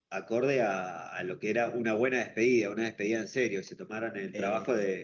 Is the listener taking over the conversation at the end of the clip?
No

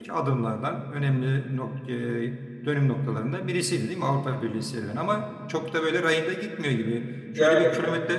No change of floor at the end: Yes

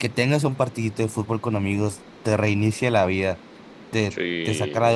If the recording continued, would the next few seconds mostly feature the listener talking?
No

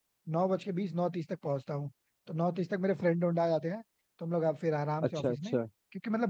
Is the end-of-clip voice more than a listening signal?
No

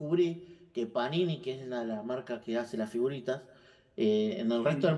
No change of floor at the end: Yes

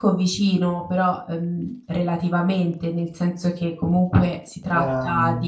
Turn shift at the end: No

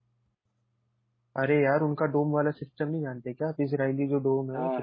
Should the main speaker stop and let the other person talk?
No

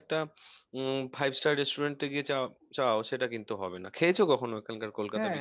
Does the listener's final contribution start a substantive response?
Yes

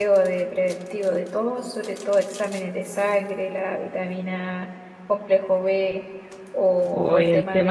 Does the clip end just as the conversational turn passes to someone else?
Yes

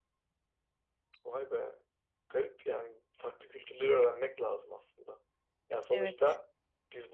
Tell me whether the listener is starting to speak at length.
No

